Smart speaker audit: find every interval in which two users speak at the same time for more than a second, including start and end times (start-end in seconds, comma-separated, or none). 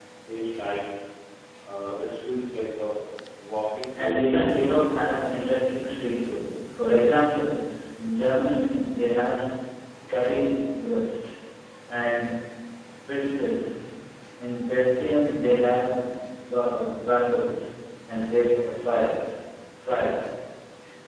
4.0-5.2